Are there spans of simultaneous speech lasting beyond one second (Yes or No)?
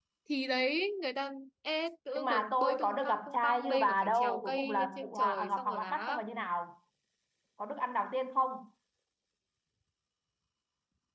Yes